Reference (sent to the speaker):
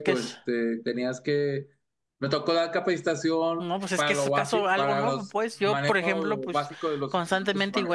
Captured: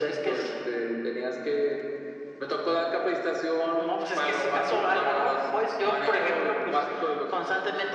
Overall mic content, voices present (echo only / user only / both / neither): echo only